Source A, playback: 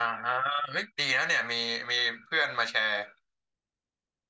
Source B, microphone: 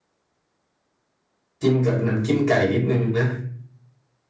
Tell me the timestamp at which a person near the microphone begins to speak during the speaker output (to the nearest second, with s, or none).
2 s